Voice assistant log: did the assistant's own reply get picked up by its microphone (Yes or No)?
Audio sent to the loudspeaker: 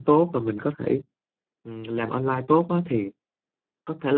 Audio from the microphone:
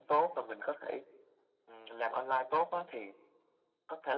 Yes